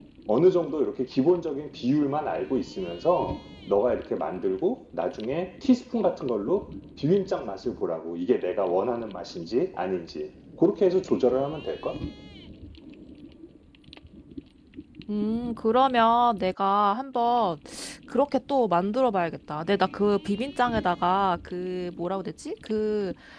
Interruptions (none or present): none